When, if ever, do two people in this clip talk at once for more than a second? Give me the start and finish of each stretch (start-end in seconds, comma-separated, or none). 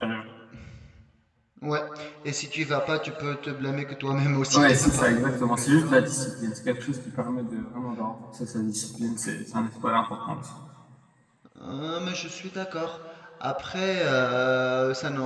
4.5-6.0